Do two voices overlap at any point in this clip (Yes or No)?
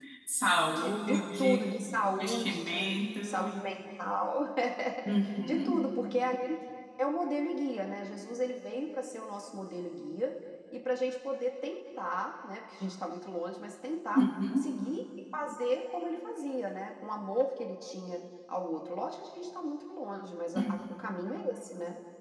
Yes